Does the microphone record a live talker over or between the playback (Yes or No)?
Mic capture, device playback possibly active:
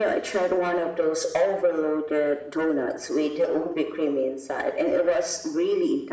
No